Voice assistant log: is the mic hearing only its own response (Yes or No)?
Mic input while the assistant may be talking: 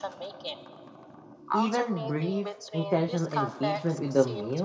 No